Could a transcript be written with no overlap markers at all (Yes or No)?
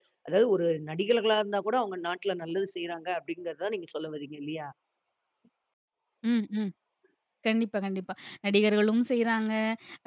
Yes